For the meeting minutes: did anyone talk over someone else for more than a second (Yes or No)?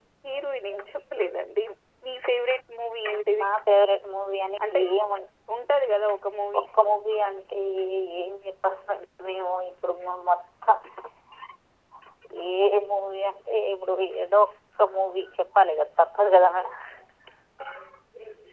No